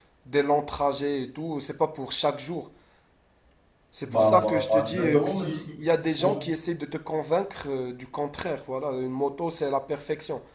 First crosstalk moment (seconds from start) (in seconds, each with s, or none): 4.0 s